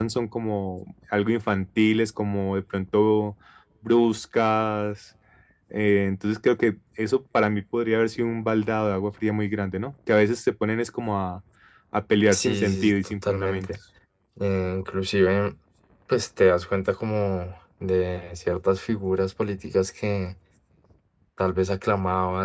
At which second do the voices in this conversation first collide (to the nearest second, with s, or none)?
12 s